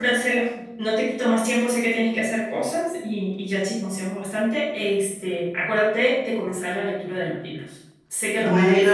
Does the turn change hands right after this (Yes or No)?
Yes